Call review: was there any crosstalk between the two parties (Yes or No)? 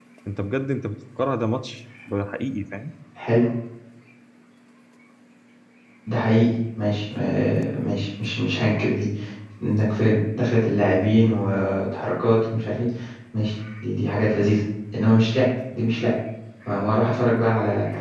No